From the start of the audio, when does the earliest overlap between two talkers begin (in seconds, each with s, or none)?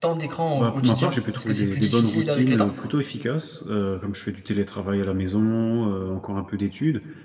0.5 s